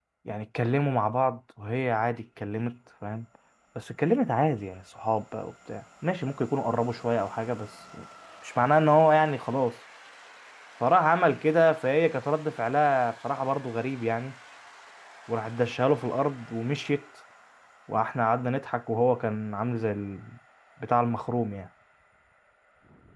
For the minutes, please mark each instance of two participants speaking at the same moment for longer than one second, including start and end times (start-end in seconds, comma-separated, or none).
none